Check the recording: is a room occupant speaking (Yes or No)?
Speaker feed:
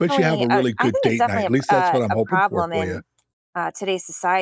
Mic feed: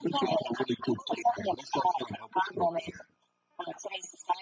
No